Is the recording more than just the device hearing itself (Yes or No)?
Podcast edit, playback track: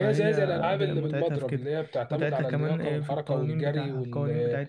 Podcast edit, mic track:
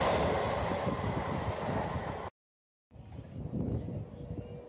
No